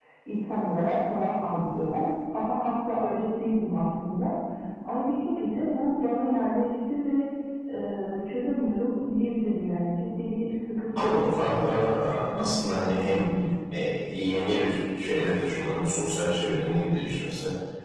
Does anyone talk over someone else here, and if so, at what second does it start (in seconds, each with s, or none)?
10.9 s